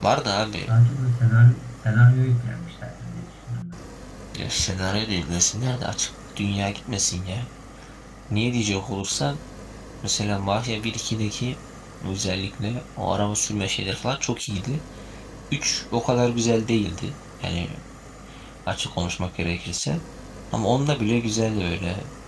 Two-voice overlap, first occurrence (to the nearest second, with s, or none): none